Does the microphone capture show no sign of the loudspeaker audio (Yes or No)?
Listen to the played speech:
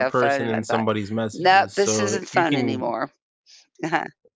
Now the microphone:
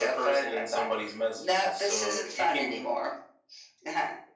No